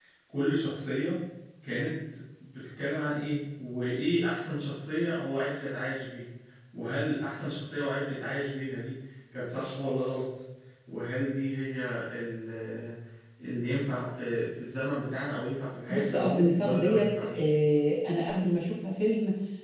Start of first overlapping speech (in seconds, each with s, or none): 15.9 s